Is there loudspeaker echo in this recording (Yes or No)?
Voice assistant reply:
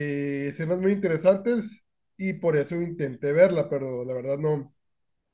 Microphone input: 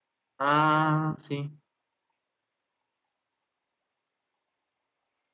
No